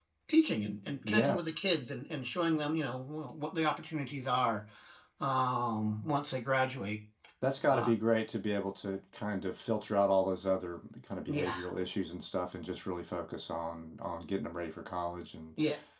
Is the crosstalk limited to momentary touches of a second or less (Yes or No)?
Yes